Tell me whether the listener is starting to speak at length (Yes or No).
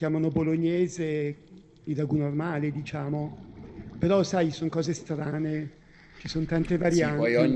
Yes